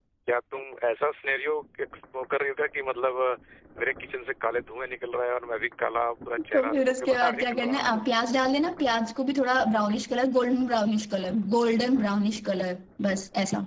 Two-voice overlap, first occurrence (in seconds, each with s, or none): 6.5 s